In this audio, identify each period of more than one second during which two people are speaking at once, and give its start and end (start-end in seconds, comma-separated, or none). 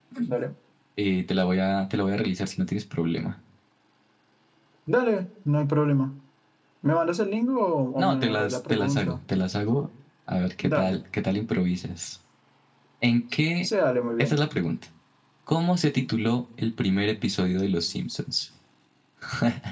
8.0-9.2